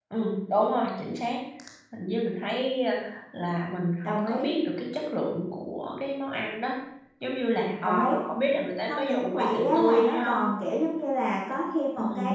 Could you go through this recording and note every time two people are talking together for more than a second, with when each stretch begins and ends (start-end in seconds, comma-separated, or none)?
8.9-10.5